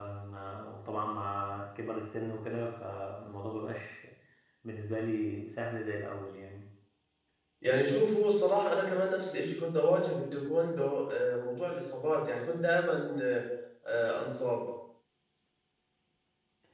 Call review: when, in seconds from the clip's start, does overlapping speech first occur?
none

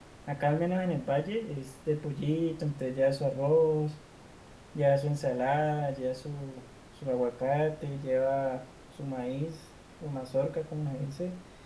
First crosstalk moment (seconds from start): none

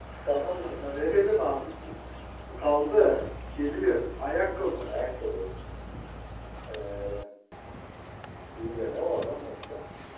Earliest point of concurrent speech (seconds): none

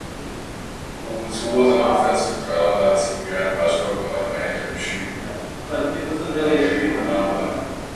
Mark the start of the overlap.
6 s

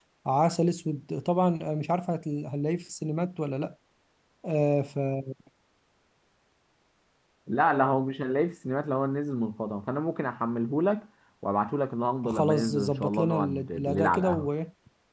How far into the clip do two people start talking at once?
12 s

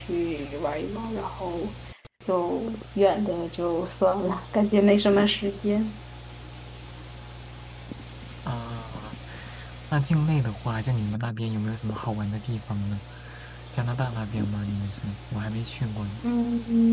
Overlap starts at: none

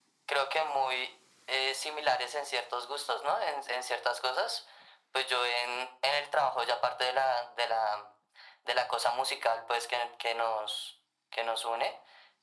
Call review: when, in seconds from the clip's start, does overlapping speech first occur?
none

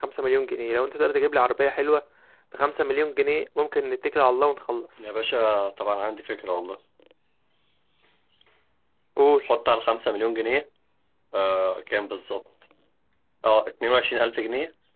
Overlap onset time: none

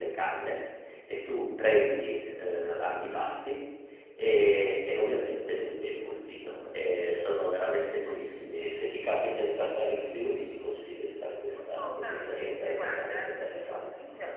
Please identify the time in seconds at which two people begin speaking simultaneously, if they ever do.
12 s

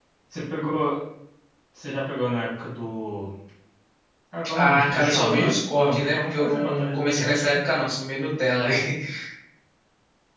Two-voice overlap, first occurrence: 5 s

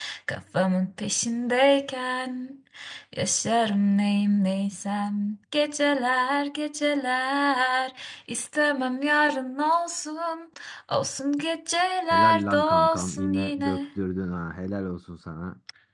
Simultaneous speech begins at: 12 s

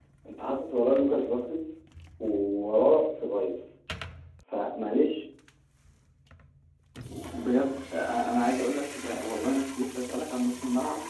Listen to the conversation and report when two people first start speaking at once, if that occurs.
none

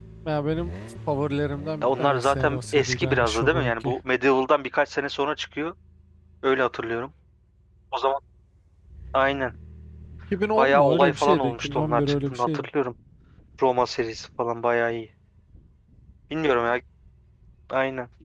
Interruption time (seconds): 2 s

